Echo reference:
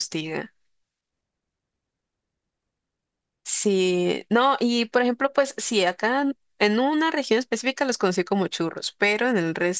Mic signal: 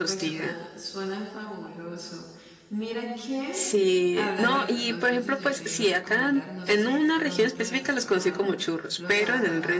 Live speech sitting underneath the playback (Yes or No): Yes